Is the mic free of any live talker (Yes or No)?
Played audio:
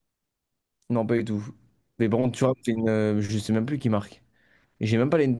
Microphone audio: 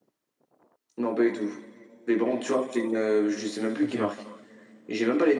No